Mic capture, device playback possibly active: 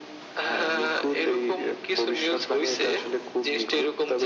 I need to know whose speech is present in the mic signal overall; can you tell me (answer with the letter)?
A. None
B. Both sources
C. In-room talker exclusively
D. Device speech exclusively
D